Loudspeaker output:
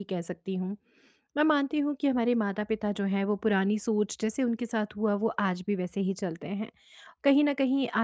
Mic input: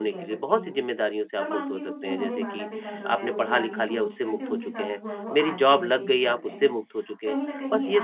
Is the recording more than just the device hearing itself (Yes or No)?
Yes